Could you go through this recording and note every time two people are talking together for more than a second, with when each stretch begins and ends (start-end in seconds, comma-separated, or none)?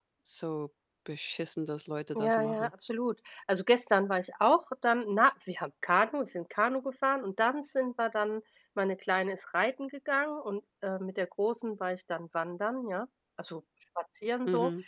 none